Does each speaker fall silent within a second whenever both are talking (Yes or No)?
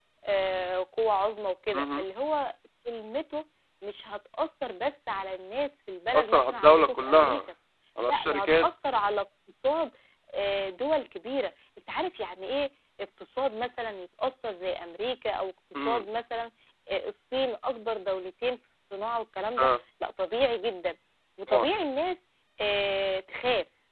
No